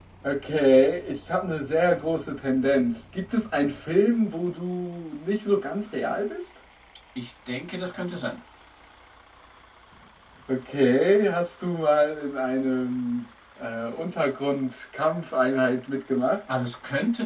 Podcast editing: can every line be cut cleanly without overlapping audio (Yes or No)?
Yes